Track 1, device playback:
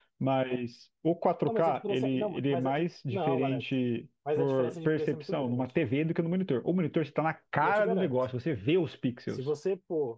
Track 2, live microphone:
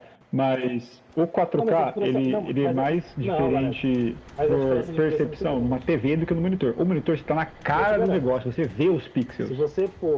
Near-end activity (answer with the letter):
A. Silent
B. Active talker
A